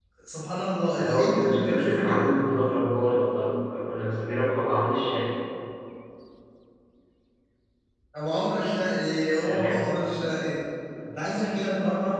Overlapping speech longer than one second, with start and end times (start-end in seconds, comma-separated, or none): 1.0-2.3